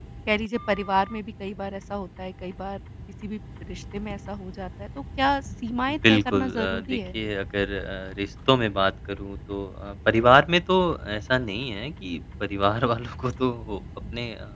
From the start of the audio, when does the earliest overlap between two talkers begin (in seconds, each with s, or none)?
5.9 s